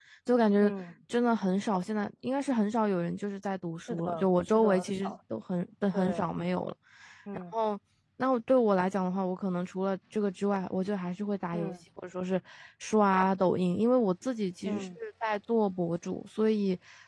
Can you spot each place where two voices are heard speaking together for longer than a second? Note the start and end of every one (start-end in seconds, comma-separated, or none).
3.8-5.1